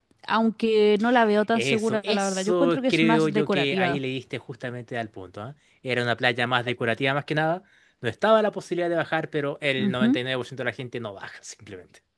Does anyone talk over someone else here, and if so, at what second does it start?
1.5 s

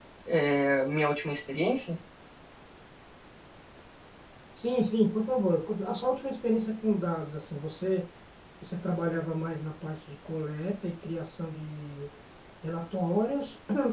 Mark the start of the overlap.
none

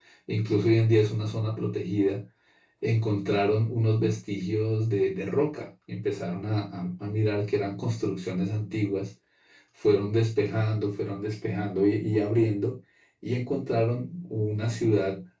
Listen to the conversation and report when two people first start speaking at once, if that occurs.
none

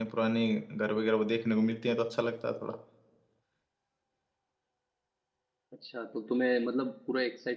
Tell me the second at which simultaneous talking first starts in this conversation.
none

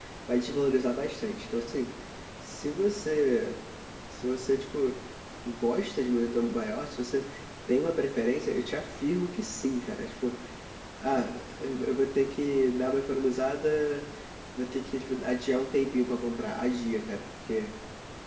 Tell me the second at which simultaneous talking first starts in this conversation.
none

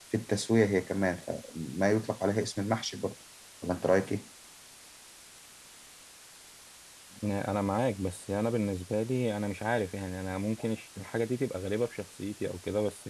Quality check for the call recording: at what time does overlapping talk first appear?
none

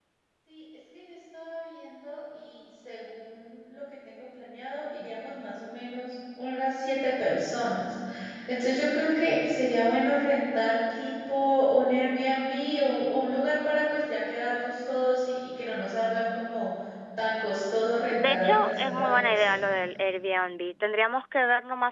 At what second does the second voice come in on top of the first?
18.0 s

